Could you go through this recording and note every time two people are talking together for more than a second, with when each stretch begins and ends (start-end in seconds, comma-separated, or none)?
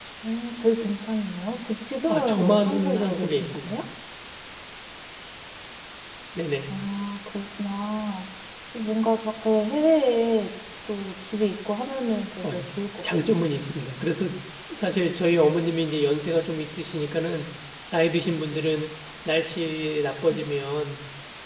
2.1-3.7